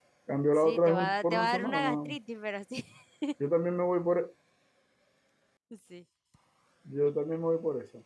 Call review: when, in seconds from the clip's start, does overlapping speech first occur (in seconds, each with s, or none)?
0.6 s